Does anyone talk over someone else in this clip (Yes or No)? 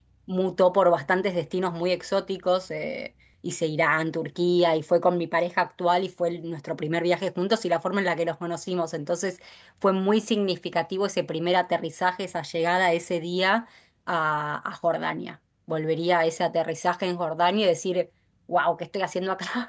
No